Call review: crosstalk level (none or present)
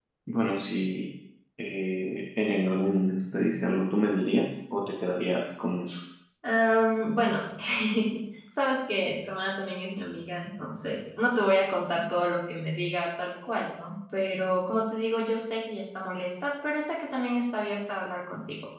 none